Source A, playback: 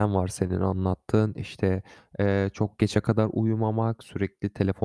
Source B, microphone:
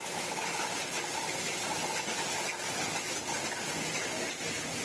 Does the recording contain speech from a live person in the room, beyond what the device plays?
No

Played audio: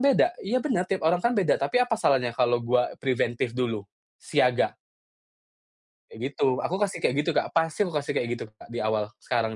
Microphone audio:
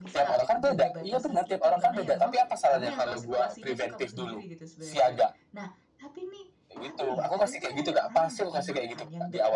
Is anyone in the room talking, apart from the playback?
Yes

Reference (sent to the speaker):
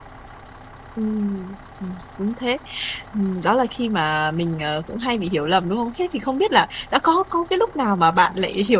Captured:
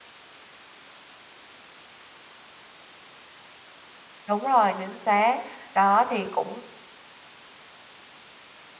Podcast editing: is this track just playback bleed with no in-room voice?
No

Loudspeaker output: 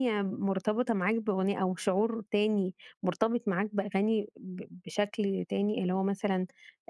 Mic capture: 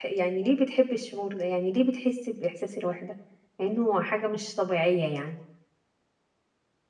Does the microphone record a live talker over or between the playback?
Yes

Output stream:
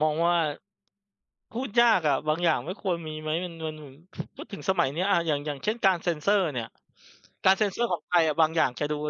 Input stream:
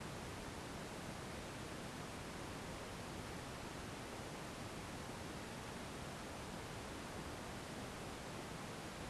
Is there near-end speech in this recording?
No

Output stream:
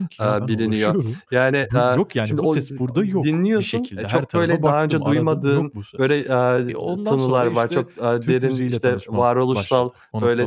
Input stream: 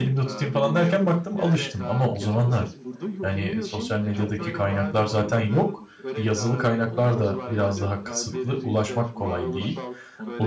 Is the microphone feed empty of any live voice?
No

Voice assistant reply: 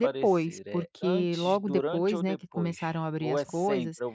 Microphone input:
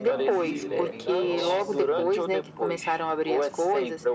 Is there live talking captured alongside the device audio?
Yes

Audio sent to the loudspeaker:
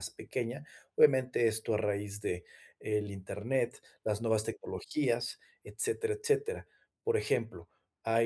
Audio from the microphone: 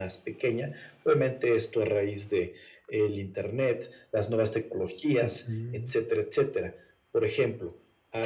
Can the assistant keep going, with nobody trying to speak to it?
No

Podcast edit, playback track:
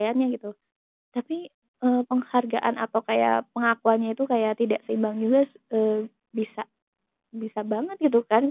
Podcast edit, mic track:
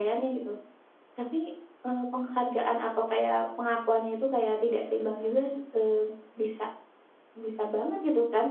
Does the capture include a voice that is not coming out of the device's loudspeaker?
No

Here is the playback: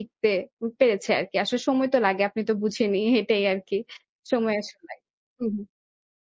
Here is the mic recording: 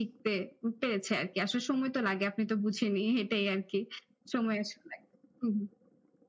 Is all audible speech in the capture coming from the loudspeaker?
Yes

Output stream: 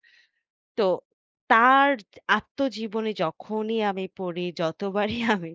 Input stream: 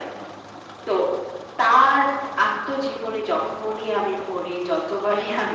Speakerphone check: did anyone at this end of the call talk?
No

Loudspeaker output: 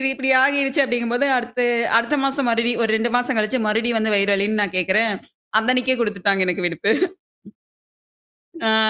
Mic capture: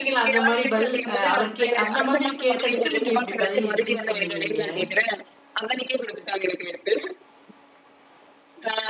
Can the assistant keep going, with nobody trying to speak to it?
No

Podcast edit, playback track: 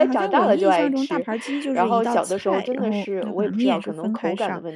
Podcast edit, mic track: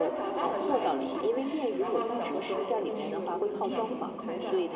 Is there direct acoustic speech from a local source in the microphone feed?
Yes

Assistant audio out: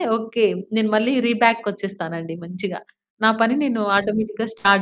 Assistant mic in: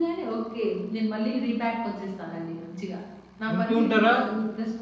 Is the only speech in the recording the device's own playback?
No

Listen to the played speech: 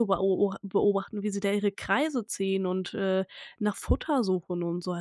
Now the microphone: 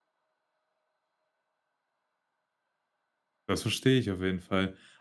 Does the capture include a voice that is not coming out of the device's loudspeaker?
Yes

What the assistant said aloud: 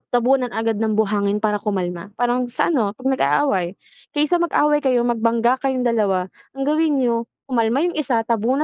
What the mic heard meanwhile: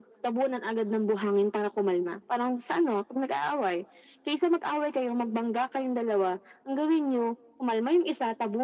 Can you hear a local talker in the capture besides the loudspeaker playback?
No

